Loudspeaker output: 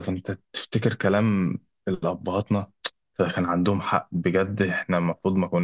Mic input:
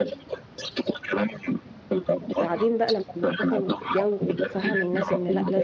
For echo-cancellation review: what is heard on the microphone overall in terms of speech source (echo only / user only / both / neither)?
both